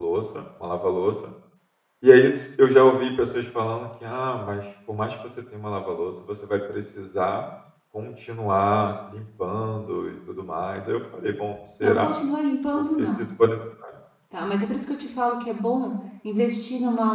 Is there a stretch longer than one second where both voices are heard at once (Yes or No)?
No